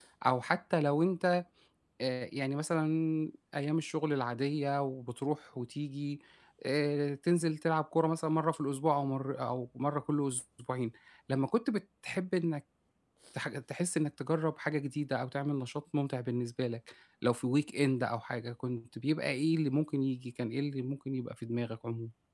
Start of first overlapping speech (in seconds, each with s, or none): none